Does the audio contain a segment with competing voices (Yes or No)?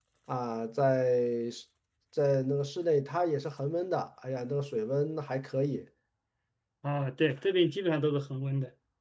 No